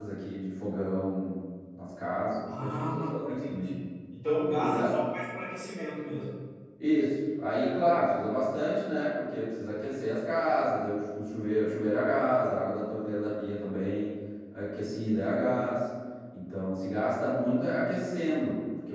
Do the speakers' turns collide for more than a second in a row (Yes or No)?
Yes